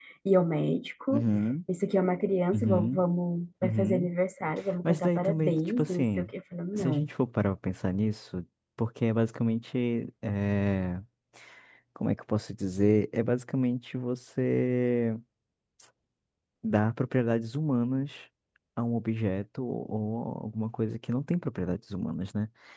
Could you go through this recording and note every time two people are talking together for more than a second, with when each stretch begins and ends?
4.8-6.3

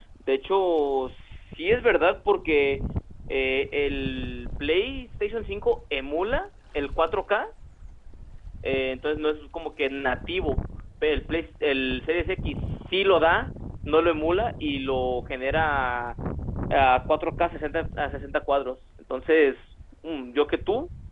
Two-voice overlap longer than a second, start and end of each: none

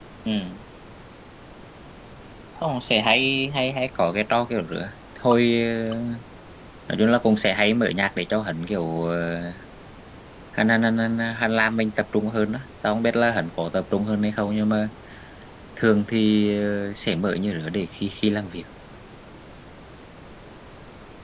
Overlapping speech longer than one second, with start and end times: none

